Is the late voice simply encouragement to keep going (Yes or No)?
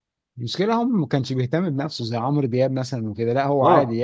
No